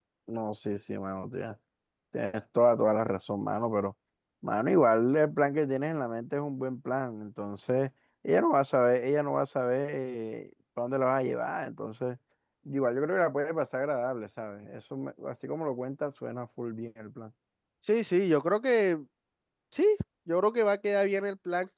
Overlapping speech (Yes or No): No